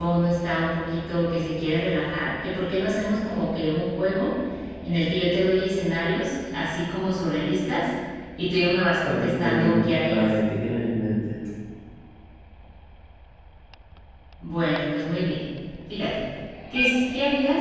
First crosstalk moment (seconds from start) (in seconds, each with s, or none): 9.0 s